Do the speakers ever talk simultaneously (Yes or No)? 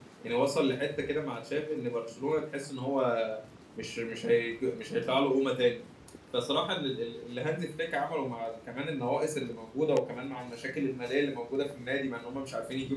No